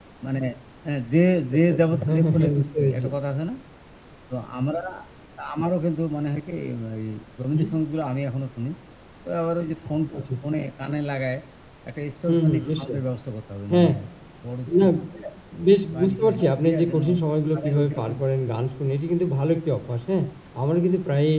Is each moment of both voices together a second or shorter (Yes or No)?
No